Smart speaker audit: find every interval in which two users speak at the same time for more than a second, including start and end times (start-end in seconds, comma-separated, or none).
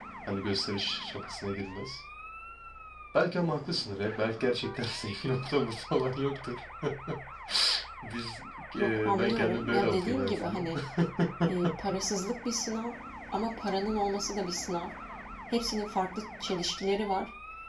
8.8-10.7